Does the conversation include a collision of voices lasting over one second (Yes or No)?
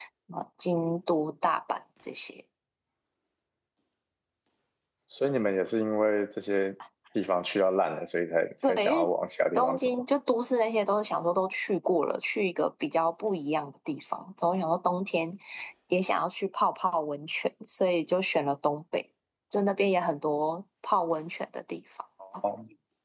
No